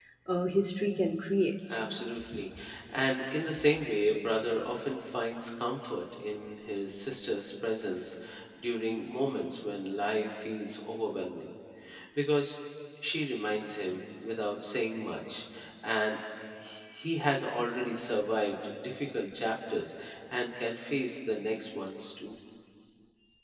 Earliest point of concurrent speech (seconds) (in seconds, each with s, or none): none